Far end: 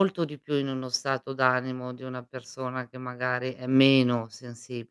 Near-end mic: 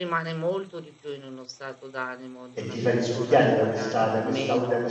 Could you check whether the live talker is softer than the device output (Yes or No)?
No